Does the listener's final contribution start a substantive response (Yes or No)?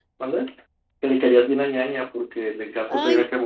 Yes